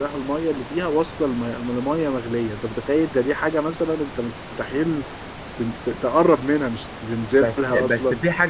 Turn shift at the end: Yes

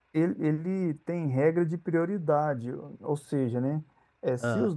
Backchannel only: Yes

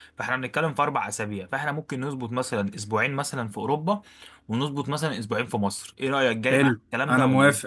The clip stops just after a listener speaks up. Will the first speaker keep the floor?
No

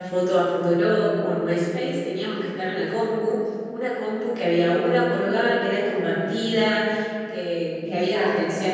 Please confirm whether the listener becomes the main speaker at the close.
No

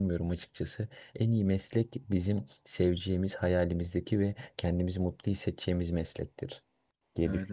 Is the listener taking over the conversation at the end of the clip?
Yes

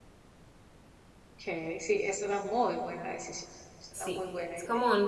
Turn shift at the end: Yes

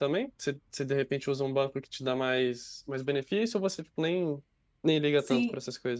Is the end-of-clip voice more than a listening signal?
Yes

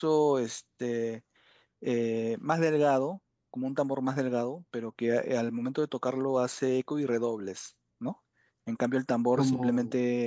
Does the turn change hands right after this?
No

